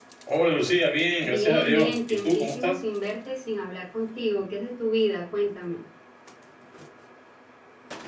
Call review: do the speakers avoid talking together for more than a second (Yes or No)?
No